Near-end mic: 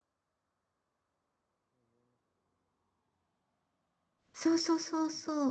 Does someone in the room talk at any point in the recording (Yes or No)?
Yes